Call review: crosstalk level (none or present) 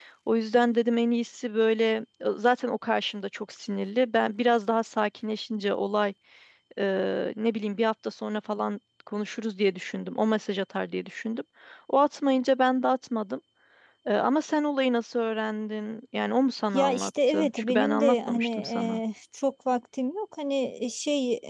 present